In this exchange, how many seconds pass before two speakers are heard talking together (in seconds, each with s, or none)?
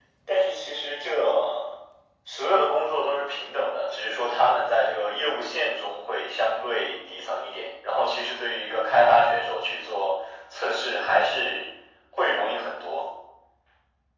none